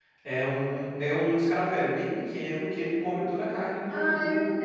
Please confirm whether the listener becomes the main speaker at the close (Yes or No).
Yes